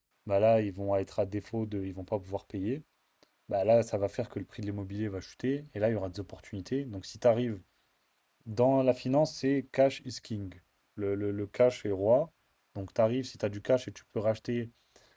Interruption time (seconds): none

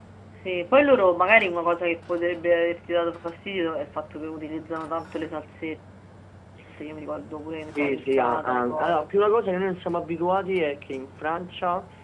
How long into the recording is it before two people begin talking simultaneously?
8 s

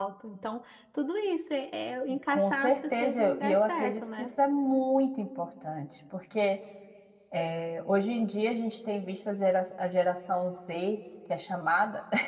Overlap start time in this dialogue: 2 s

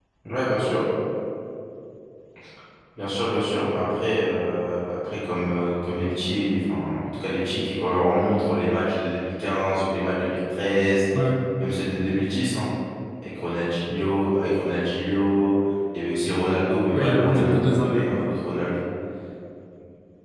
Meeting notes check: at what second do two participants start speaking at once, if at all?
17 s

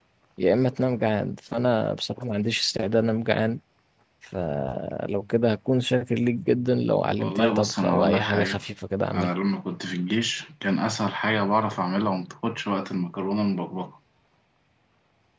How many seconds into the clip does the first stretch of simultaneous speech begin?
7 s

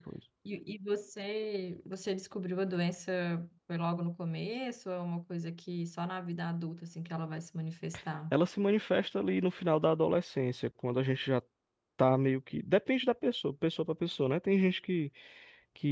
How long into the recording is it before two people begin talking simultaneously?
none

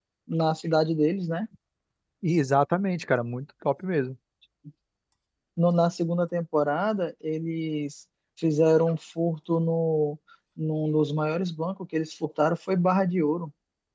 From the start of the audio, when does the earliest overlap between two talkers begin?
none

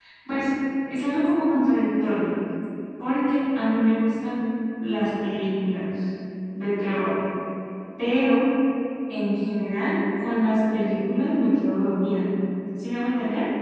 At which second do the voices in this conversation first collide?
none

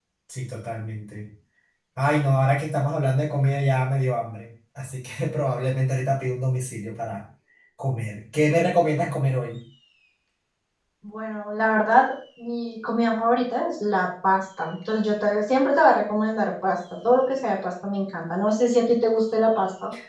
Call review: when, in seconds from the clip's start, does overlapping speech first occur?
none

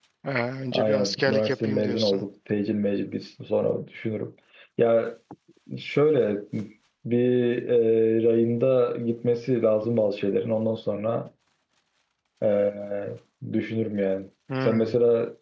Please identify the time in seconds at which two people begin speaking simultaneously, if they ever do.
1 s

